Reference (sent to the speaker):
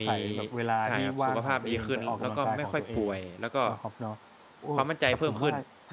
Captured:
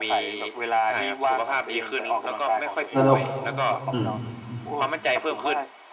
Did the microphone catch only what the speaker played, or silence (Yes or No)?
No